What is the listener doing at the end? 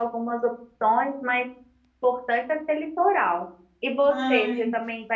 listening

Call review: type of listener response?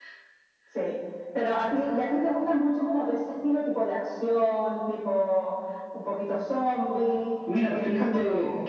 taking over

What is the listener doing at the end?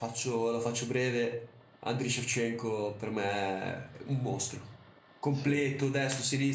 listening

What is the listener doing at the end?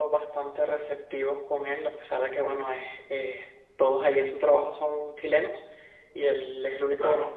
listening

